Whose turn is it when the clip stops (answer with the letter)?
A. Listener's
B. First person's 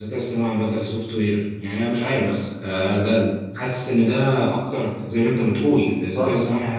B